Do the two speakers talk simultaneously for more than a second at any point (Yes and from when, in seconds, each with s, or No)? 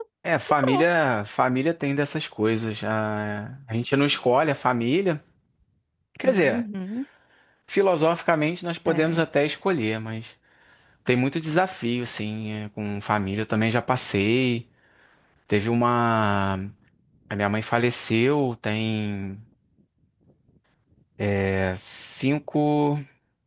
No